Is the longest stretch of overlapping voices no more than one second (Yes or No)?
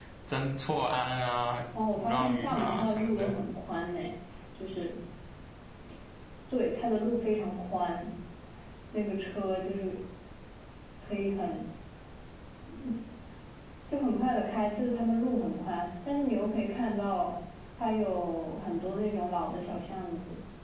No